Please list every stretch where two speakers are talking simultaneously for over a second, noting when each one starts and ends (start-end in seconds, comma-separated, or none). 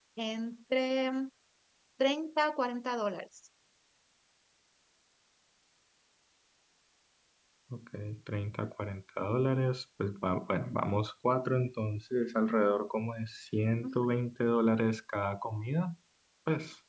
none